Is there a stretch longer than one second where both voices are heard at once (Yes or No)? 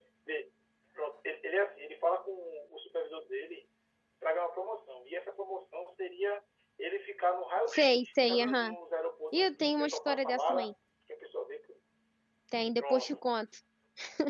Yes